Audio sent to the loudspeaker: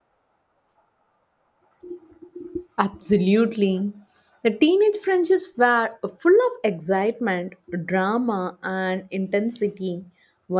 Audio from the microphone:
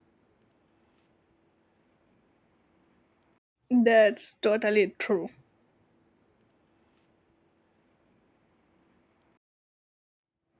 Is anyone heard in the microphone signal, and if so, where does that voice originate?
user only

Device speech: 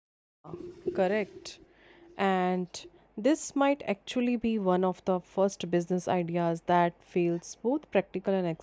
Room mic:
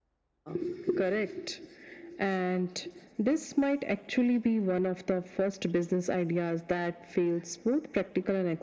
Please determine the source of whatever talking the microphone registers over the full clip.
echo only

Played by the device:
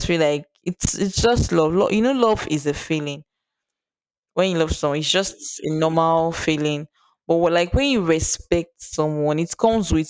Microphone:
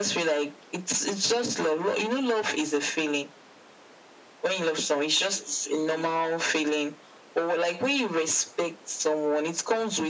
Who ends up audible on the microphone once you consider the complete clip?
echo only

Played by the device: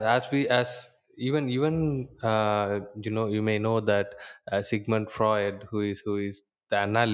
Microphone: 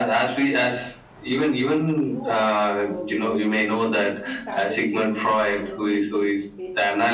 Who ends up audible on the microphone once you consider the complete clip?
both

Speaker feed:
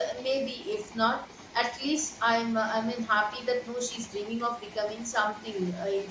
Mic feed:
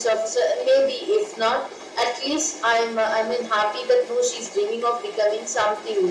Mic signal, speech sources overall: echo only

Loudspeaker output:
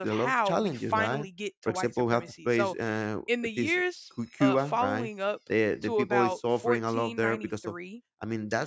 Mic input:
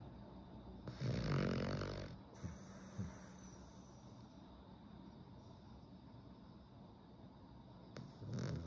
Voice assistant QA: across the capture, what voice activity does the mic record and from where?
neither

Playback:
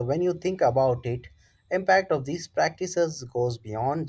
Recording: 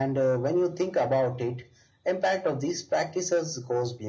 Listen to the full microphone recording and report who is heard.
echo only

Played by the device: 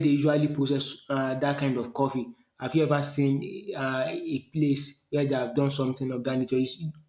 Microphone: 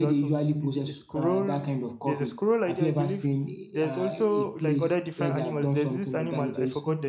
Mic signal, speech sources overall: both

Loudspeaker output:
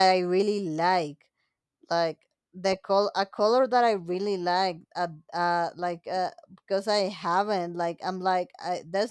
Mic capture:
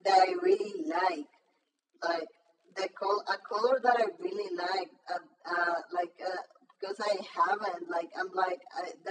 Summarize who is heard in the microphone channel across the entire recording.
echo only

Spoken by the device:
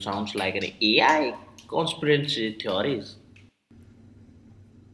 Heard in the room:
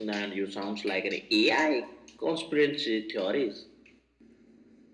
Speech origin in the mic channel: echo only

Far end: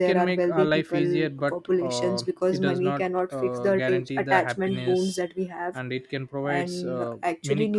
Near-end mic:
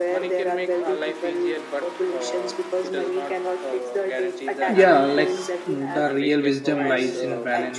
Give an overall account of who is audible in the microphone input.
both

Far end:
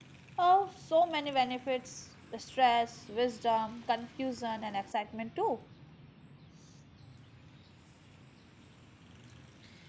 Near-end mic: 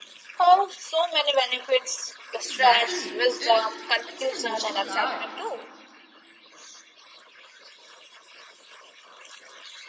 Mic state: both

